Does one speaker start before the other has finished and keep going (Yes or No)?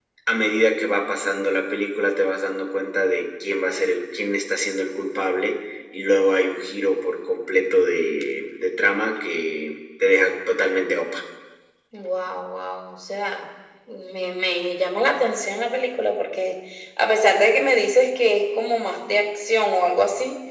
No